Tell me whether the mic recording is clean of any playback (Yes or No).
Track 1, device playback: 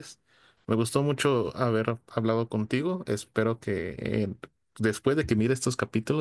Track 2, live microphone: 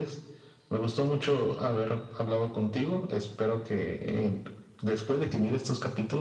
No